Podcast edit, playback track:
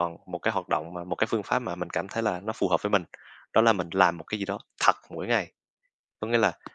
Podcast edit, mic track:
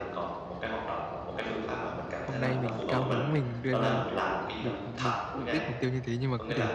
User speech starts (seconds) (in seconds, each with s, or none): 2.2 s